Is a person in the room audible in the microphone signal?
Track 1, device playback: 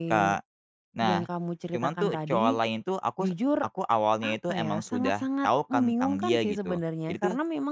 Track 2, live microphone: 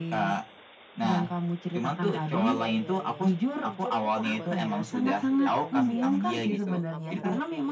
Yes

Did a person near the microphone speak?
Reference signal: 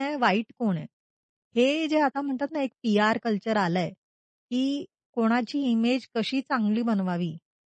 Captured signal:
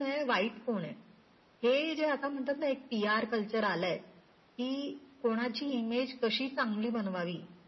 No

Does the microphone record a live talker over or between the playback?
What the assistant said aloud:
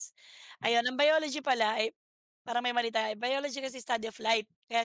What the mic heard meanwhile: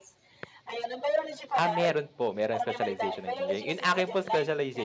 Yes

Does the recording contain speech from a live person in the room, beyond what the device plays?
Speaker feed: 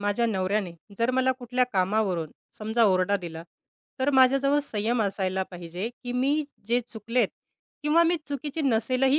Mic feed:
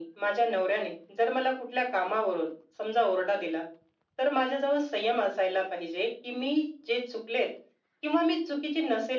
No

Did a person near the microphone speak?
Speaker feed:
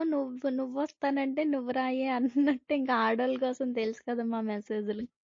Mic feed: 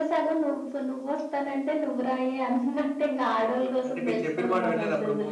Yes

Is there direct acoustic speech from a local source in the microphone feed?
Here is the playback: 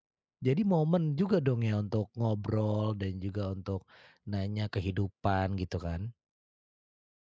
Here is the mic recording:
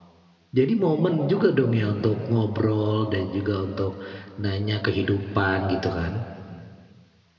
No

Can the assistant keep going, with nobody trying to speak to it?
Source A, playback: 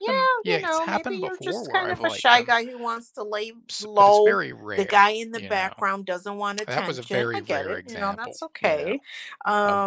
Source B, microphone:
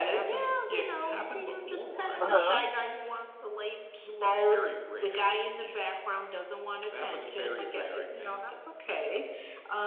No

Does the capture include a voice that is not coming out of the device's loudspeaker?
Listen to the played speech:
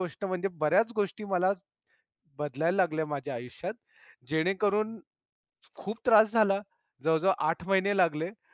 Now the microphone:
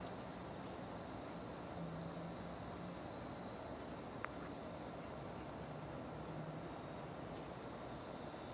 No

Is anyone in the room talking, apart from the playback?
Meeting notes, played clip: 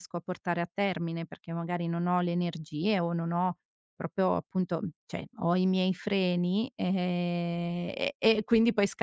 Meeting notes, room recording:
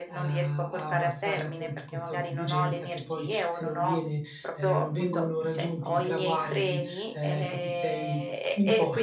Yes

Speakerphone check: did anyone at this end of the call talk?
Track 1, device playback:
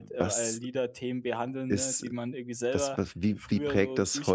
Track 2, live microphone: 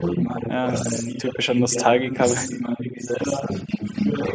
Yes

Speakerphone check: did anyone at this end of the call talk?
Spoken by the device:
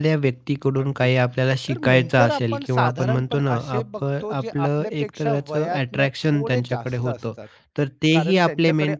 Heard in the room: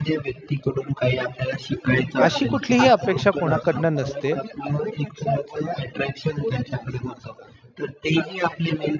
Yes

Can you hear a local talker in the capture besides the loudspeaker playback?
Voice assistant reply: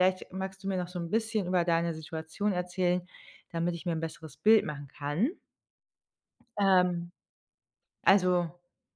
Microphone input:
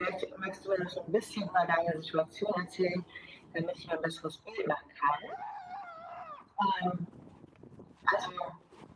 No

